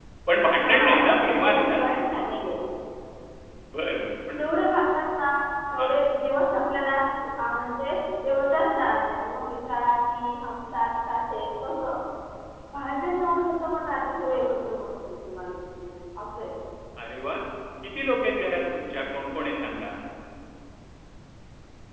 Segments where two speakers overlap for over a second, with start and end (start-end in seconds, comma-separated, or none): 0.6-1.8